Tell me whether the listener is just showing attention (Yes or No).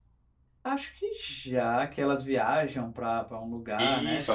No